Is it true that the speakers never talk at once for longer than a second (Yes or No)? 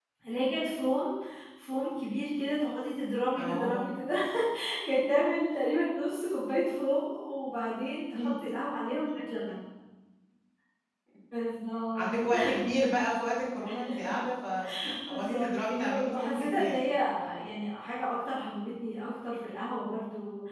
No